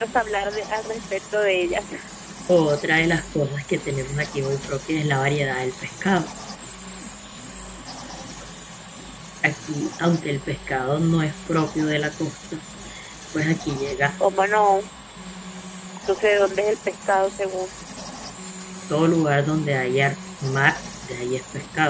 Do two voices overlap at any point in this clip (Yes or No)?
No